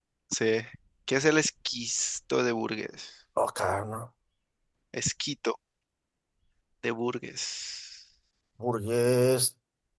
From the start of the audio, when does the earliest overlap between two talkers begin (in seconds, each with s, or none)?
none